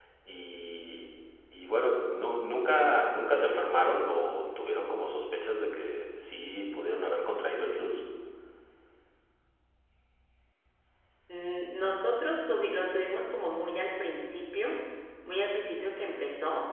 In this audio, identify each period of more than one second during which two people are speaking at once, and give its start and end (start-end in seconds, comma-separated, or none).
none